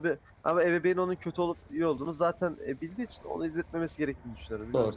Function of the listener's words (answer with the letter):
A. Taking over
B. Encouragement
A